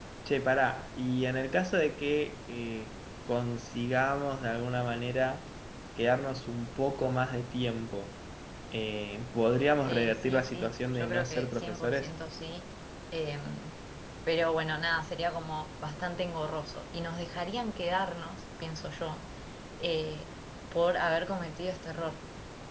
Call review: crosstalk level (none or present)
present